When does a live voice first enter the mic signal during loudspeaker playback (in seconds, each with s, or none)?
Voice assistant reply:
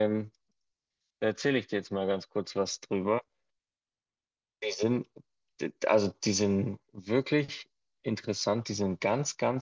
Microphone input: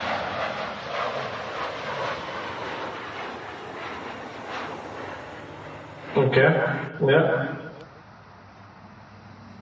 6.1 s